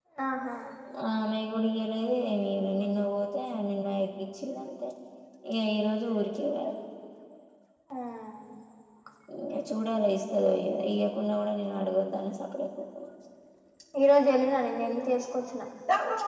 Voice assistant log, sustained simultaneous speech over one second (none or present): none